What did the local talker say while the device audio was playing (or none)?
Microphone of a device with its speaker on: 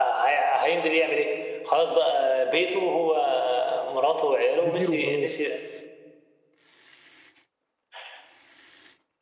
كتير وخلاص